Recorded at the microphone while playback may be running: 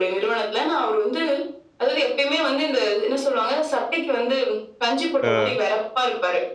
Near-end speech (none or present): present